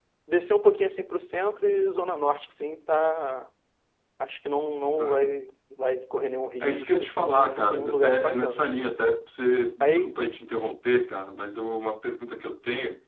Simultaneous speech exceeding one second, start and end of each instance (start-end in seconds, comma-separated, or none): 6.6-8.8